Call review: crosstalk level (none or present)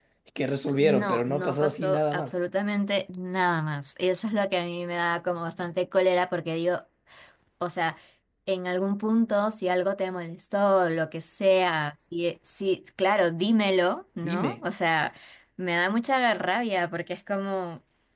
present